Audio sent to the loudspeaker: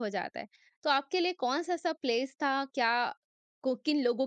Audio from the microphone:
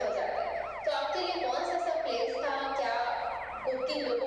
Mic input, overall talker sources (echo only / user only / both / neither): echo only